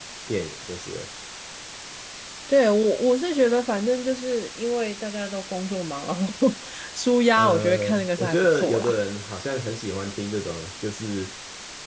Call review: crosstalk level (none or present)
present